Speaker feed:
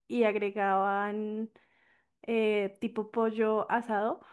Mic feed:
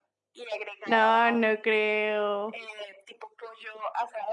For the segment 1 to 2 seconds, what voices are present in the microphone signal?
both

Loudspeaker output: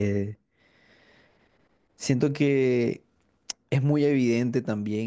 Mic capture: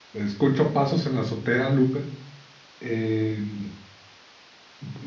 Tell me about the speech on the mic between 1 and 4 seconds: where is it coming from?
user only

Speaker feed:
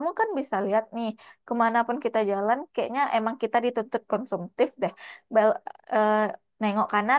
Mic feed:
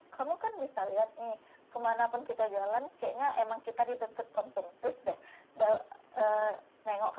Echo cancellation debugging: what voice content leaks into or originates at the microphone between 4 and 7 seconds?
echo only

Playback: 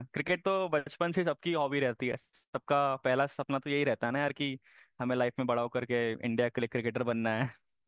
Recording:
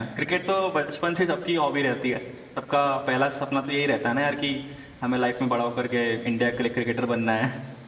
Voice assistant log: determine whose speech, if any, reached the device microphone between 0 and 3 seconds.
echo only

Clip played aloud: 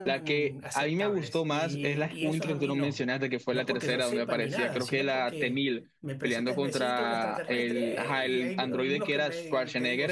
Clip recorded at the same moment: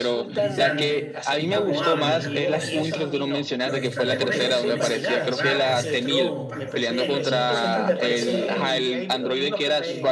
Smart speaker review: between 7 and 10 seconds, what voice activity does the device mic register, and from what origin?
both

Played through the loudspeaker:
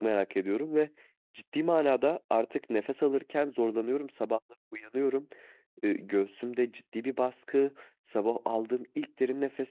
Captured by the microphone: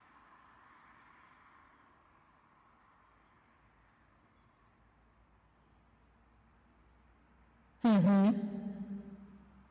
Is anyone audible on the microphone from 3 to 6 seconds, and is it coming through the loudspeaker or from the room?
neither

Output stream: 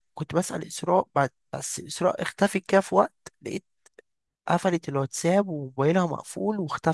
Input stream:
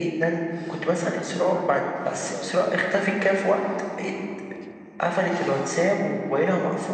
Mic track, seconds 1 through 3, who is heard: both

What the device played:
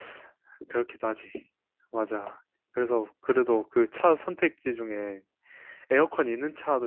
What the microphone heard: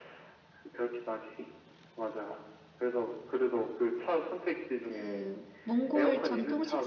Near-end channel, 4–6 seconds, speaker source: both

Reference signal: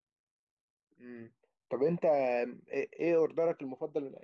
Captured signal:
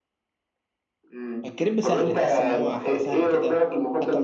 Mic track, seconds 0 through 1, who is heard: neither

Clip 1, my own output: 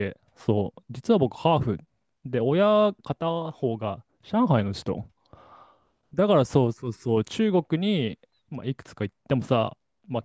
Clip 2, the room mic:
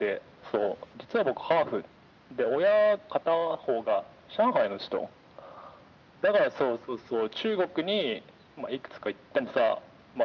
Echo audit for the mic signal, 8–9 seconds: echo only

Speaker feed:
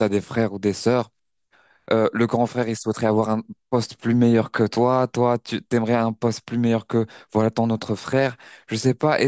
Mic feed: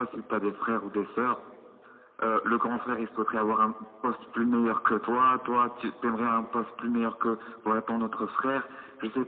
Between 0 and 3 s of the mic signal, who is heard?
echo only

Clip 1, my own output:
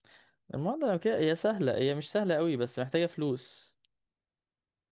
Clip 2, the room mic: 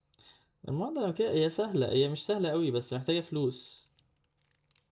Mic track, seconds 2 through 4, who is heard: echo only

